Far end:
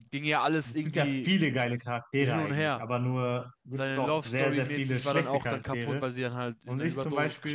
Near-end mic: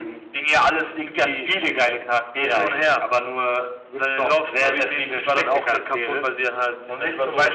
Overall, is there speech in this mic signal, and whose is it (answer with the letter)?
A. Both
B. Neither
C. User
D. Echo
D